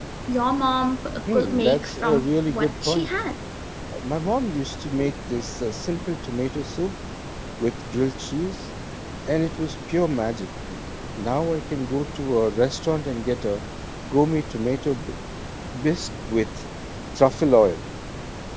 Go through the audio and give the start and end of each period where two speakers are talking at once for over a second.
1.3-3.1

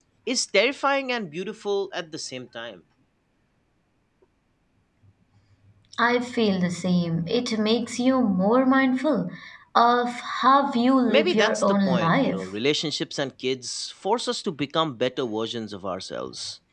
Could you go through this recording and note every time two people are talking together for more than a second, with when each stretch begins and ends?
11.1-12.5

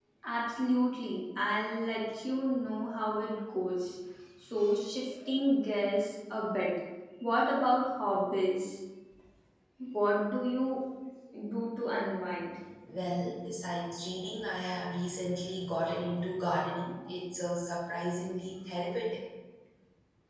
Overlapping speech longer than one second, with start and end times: none

